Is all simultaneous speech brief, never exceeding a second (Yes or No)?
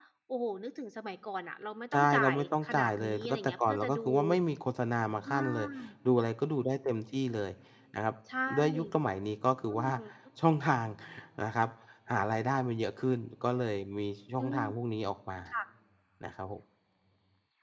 No